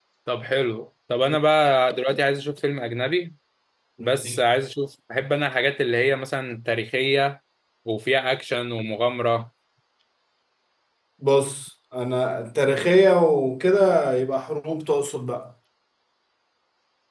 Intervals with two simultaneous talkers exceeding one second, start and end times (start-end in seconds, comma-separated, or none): none